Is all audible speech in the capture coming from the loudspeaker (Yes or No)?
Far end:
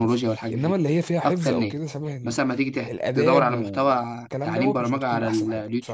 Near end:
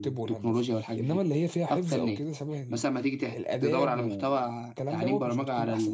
Yes